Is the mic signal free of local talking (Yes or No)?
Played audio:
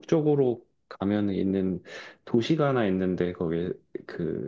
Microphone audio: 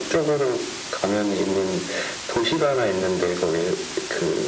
Yes